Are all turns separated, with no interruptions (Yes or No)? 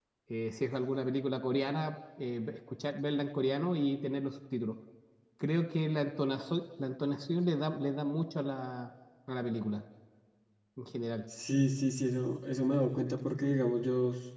Yes